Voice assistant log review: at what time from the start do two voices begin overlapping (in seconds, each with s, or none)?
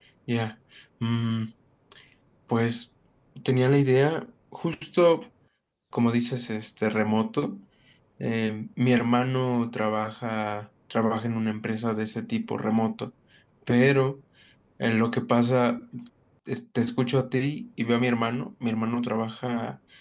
none